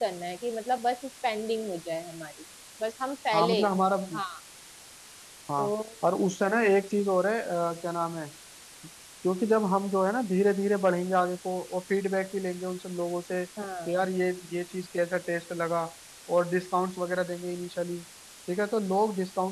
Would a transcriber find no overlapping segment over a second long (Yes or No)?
Yes